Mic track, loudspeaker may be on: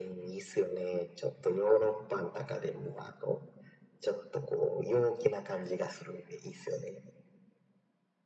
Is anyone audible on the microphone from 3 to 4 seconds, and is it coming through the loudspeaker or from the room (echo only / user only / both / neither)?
echo only